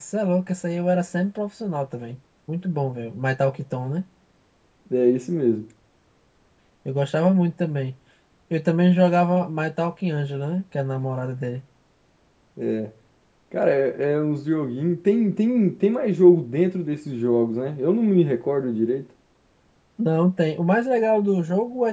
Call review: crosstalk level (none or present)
none